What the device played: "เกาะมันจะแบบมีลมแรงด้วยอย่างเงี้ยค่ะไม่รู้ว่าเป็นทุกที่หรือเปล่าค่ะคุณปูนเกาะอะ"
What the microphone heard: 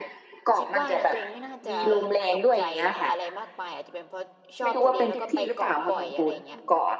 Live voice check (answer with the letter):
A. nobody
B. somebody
B